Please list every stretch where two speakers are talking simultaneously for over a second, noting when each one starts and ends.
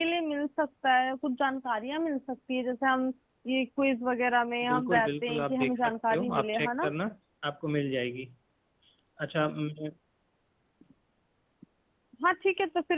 4.7-6.9

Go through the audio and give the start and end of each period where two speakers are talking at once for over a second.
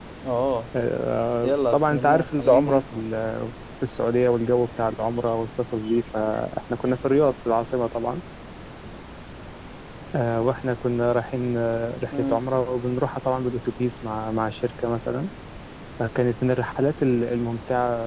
1.4-3.0

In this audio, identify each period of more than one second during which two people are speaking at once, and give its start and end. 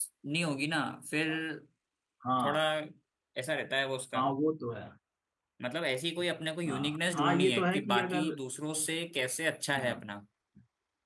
6.7-8.3

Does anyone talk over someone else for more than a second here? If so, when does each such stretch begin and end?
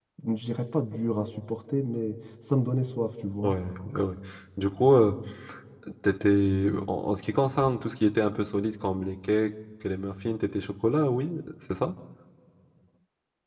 none

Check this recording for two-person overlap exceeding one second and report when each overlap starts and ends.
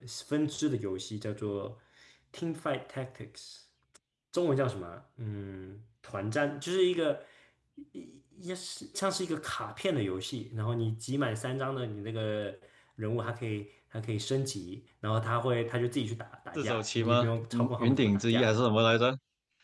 16.6-18.6

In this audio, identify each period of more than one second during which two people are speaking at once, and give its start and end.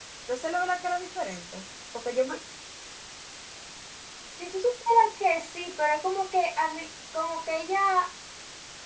none

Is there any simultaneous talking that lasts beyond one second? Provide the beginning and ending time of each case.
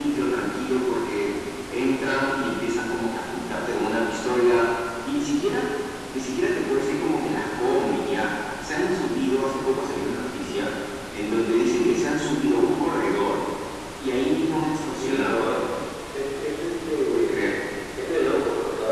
none

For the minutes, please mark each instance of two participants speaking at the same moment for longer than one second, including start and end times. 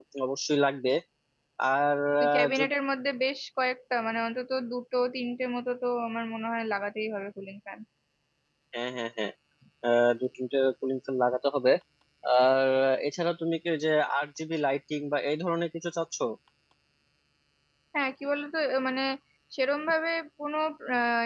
none

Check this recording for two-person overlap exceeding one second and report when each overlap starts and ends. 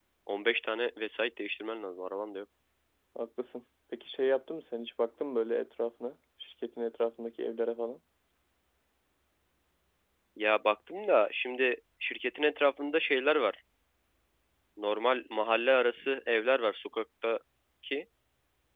none

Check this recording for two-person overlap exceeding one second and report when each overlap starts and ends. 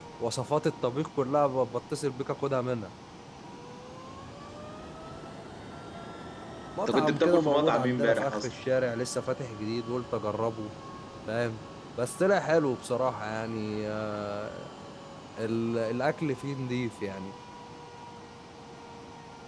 6.9-8.5

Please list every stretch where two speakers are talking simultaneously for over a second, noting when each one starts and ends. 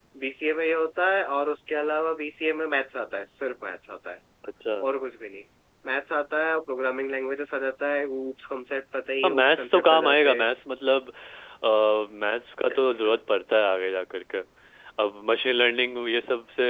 9.2-10.5

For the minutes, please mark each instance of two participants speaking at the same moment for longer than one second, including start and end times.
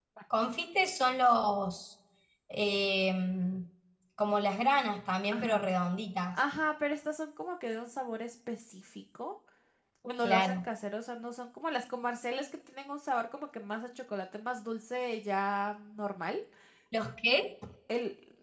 none

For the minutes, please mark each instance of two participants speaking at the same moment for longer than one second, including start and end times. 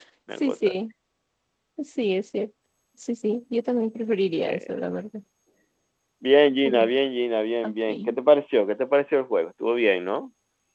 none

